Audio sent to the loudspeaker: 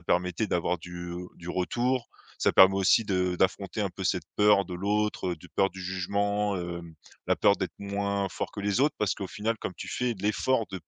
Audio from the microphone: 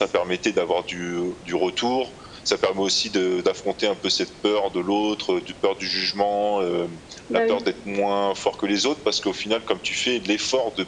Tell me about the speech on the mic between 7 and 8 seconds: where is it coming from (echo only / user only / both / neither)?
both